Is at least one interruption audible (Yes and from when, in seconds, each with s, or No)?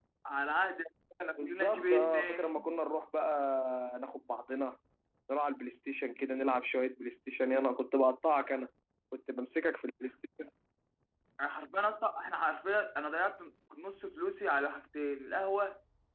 Yes, from 1.4 s